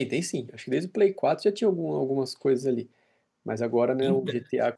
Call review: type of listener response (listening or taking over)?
listening